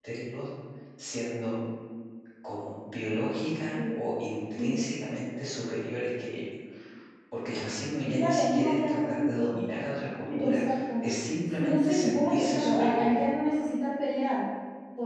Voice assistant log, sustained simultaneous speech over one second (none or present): present